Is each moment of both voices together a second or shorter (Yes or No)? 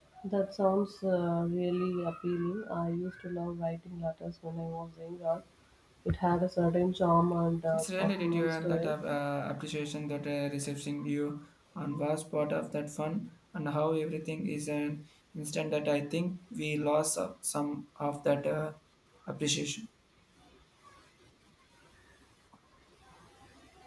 No